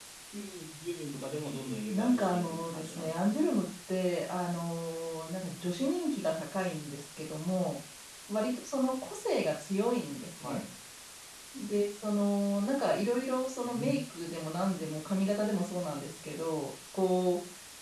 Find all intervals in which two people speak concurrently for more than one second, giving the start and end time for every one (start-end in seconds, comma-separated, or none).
1.9-3.3